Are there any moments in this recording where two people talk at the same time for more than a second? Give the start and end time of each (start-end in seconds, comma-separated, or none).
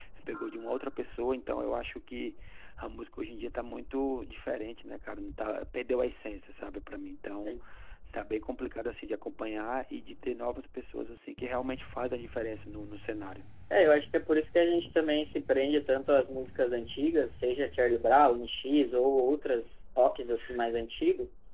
none